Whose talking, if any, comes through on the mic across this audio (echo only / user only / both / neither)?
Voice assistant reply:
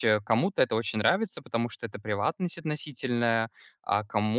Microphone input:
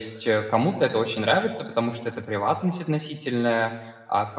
echo only